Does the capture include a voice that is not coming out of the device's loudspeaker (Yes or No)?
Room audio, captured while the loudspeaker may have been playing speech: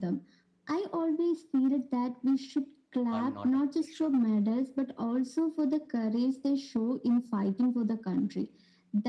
Yes